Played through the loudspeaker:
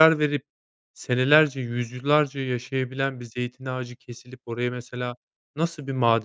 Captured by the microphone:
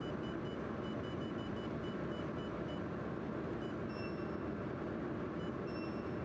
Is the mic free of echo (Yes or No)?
Yes